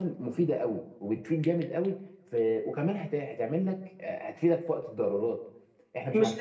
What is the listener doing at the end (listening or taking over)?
taking over